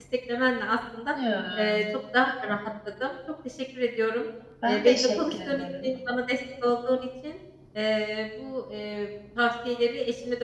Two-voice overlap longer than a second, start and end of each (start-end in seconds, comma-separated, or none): 4.6-5.9